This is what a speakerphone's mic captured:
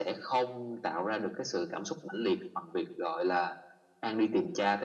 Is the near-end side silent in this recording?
Yes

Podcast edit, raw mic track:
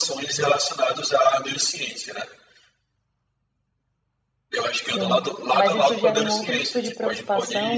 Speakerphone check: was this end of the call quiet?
No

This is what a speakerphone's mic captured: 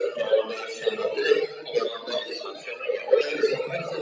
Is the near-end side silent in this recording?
Yes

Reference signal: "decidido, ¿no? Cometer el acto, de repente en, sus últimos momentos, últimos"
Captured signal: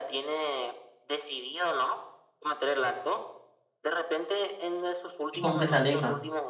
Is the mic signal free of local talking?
No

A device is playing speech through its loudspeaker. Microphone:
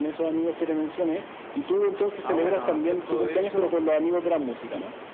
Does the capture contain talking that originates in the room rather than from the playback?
Yes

